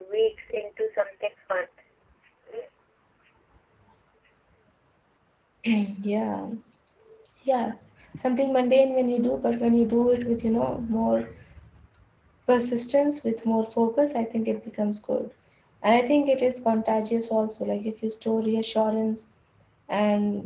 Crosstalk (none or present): none